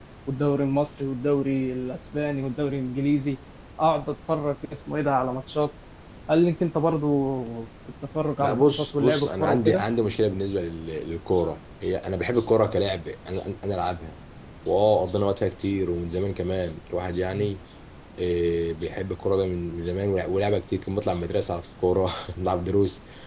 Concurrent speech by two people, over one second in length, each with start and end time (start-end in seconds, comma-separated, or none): 8.4-9.8